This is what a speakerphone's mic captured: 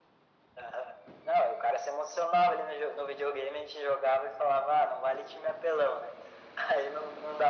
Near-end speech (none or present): none